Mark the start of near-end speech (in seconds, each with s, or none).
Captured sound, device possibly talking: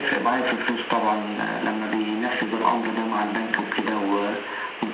none